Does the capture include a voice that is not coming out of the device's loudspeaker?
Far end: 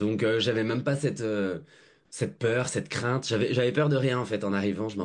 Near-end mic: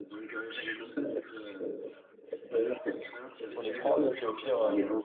Yes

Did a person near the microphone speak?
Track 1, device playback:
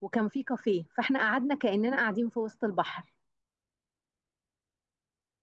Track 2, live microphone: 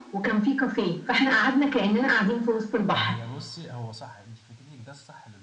Yes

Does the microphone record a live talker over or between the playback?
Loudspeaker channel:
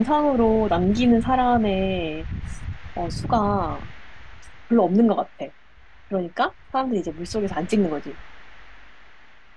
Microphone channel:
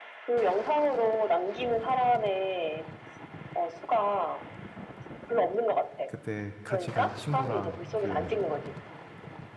Yes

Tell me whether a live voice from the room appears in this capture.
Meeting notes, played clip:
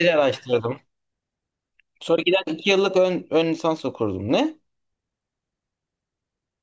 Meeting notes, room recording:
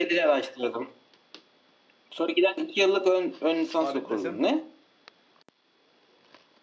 Yes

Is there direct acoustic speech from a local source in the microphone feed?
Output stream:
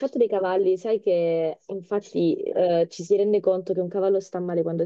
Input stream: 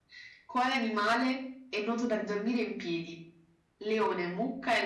Yes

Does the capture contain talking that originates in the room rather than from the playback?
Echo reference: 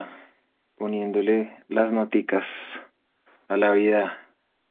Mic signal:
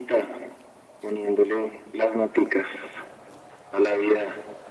No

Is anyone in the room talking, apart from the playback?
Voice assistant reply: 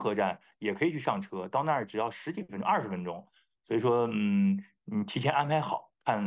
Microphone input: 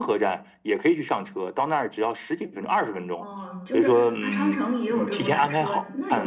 Yes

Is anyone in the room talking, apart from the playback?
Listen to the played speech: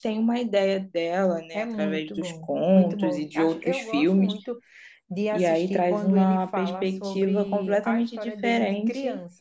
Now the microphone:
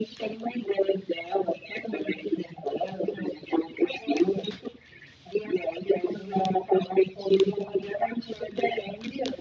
No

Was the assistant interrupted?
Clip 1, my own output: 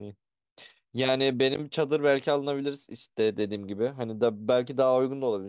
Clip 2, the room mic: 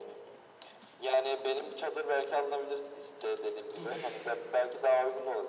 Yes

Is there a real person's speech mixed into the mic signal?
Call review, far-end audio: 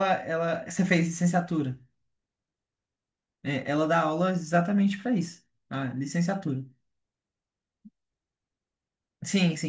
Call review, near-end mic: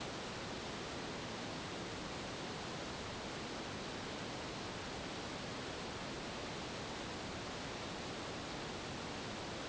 No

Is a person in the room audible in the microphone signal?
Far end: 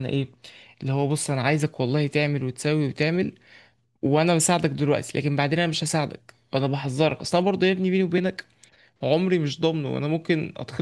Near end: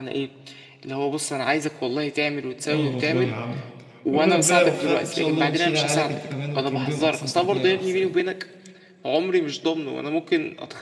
Yes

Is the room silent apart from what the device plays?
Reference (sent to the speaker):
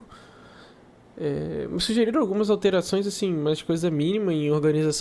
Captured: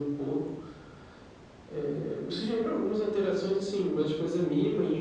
Yes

